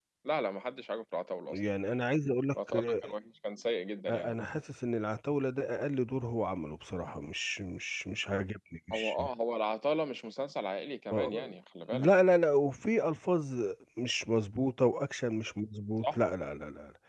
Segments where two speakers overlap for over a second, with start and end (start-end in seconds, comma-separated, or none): none